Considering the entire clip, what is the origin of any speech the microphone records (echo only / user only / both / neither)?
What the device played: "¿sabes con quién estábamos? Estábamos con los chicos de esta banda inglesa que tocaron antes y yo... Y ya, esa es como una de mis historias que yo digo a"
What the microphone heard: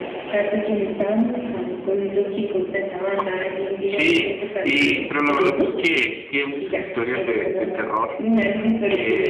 both